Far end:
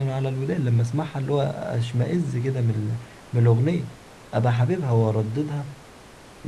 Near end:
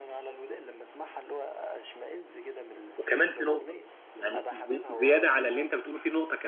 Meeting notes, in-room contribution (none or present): present